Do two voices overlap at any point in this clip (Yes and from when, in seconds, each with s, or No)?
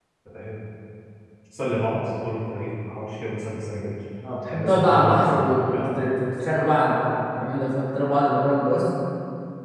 Yes, from 4.5 s